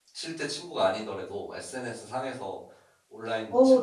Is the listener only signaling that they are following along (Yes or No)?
No